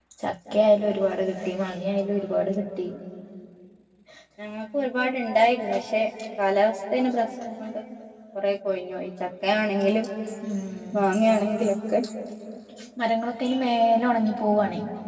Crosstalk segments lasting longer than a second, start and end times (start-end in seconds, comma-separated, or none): none